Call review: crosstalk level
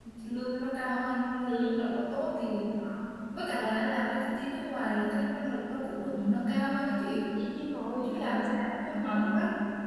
present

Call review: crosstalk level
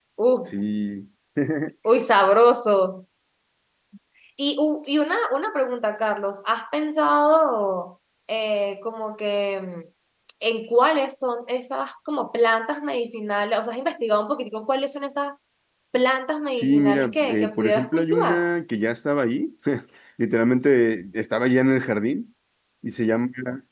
present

